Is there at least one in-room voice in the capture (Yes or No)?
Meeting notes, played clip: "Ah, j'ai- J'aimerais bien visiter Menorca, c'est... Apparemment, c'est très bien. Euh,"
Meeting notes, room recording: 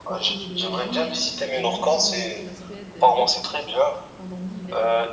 Yes